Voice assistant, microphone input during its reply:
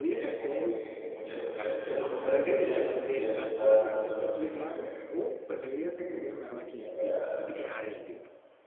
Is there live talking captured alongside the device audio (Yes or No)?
Yes